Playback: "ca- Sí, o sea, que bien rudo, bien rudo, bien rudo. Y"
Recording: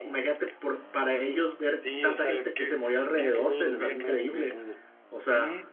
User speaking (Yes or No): Yes